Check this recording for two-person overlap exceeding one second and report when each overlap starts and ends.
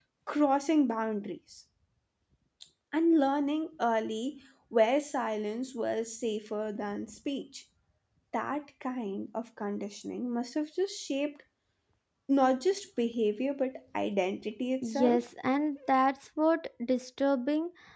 none

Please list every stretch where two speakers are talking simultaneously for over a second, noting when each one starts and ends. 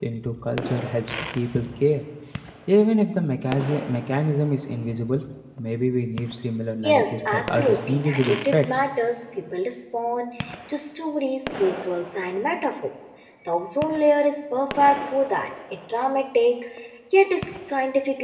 6.8-8.6

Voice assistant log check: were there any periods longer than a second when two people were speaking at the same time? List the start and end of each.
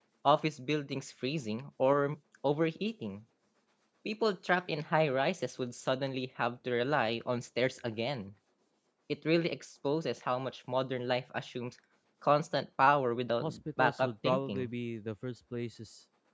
13.4-14.7

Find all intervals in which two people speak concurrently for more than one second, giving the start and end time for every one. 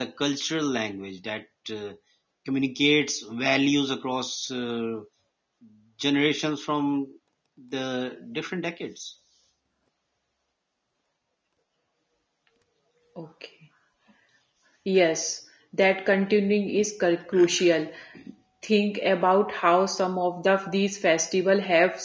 none

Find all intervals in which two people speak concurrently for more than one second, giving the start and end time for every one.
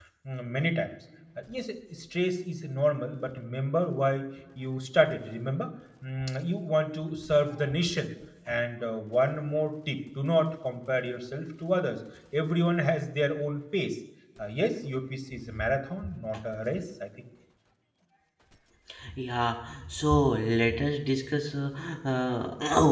none

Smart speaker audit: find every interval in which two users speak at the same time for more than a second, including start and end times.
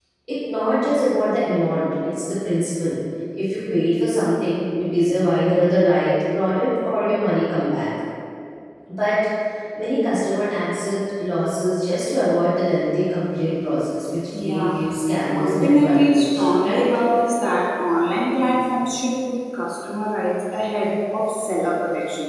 15.3-16.9

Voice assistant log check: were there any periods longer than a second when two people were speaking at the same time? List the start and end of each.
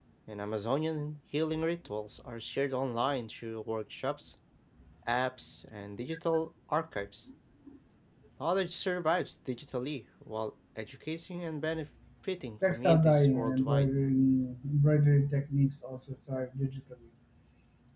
12.6-13.9

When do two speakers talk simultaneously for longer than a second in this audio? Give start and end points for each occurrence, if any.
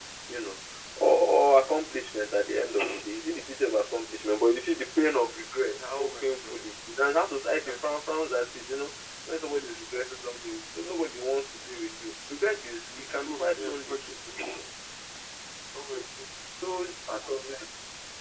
13.0-14.2

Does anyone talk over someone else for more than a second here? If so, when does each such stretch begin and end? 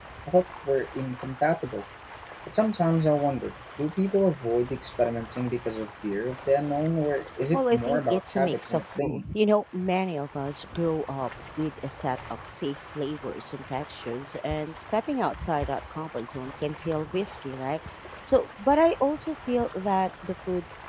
7.5-9.2

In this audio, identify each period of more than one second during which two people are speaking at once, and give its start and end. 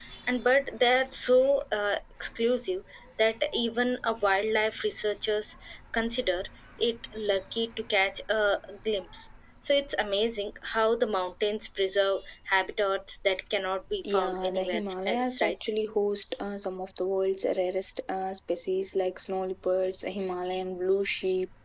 14.1-15.6

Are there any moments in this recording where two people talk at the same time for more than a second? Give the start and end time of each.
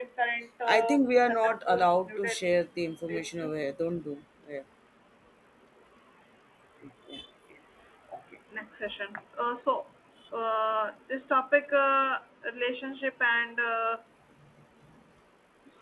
0.7-2.5

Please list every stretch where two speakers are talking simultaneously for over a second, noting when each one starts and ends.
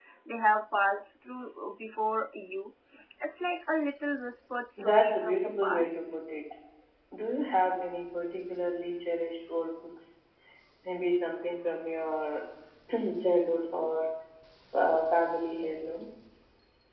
4.8-6.1

